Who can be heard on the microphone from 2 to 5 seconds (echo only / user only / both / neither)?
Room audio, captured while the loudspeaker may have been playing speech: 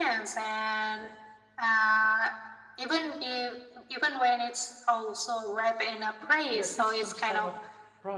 echo only